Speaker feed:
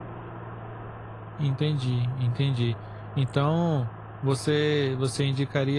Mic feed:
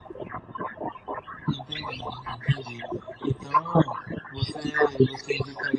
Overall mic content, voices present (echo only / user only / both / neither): echo only